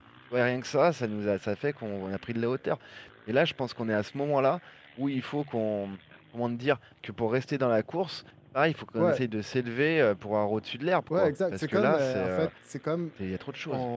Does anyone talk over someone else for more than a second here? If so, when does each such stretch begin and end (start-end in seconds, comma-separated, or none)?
11.2-12.5